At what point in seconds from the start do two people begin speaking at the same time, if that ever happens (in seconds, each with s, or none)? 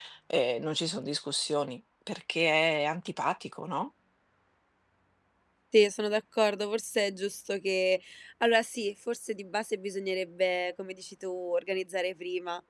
none